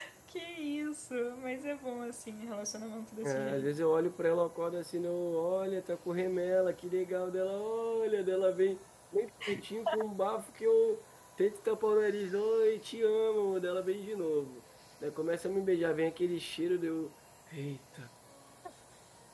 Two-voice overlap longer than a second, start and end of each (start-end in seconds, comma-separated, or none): none